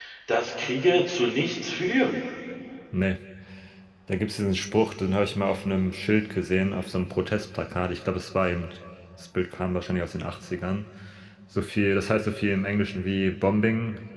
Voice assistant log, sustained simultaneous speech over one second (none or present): none